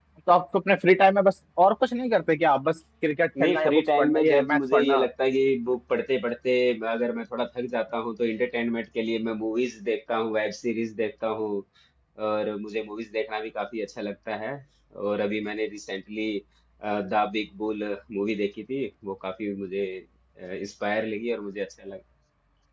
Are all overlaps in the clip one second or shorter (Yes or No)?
No